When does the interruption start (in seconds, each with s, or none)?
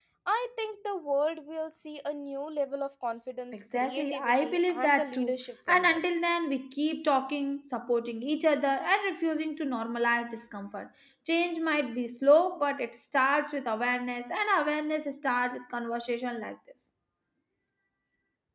3.5 s